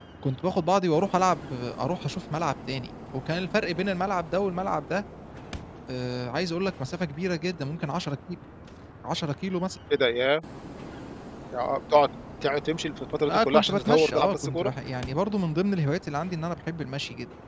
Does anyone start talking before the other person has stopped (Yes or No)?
Yes